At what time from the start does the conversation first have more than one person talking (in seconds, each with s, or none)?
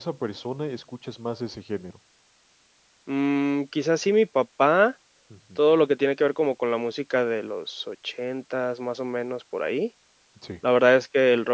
none